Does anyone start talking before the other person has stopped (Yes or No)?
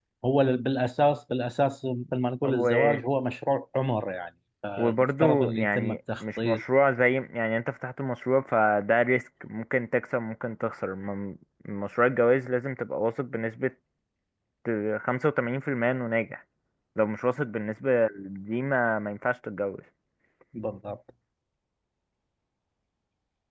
Yes